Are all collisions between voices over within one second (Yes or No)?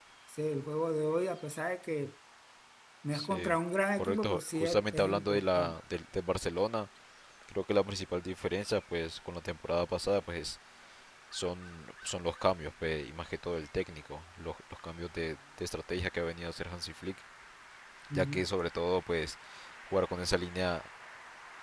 No